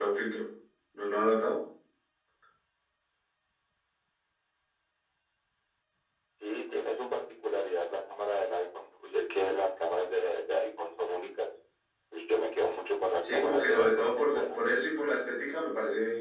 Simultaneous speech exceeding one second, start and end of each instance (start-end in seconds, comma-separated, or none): 13.2-14.6